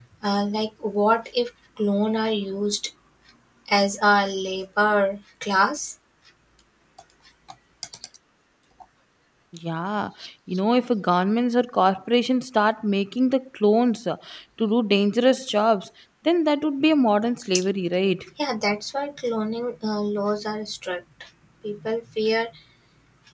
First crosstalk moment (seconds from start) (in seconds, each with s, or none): none